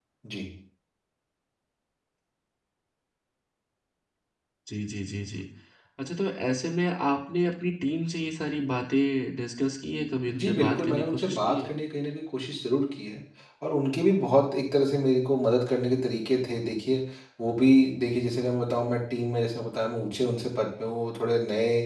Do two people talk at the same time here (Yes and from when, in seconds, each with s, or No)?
Yes, from 10.3 s